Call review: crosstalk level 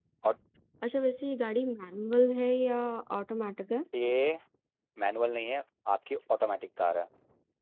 none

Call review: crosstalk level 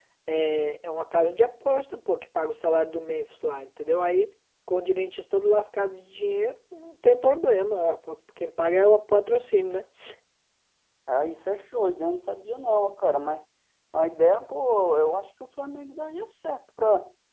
none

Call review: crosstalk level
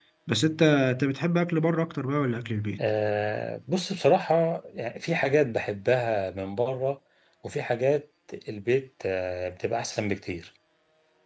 none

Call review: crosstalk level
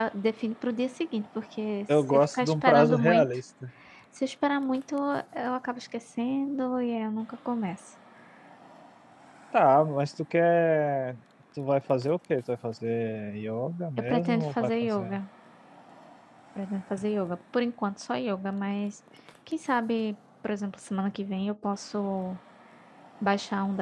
present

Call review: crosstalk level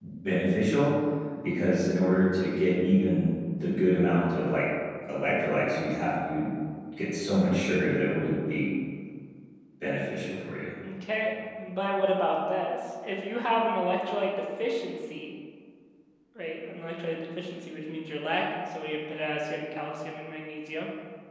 none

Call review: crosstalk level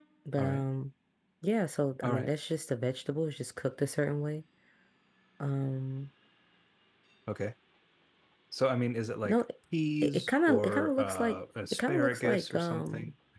present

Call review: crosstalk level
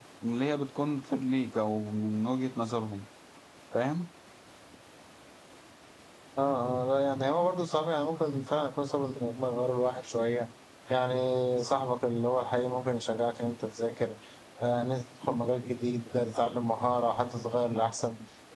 none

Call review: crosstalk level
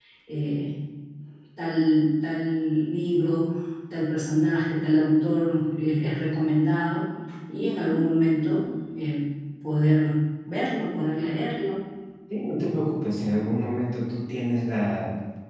none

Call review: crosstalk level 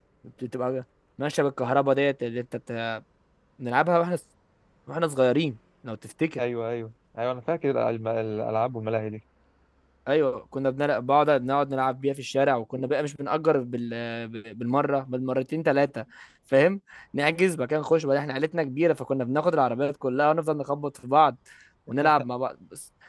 none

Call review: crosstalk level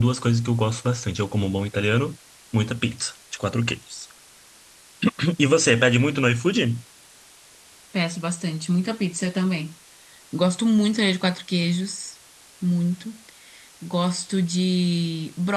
none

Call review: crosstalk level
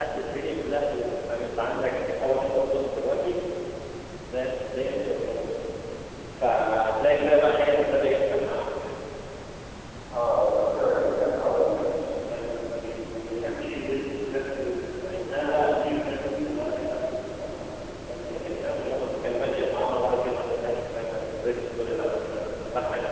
present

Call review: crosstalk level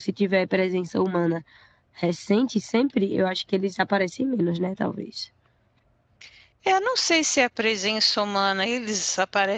none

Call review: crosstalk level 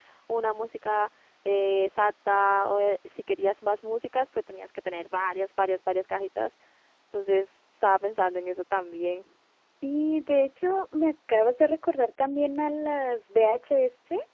none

